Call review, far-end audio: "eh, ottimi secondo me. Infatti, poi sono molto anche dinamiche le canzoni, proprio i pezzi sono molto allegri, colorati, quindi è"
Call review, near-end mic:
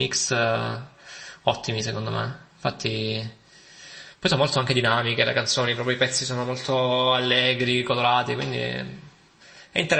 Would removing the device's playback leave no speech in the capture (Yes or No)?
Yes